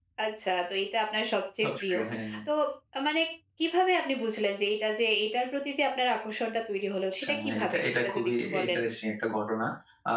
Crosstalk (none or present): present